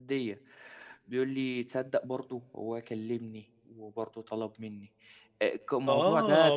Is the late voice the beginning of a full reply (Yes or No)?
Yes